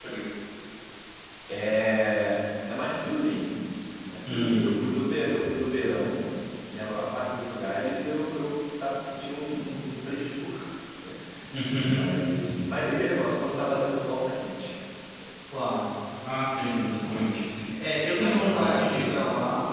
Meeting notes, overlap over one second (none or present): present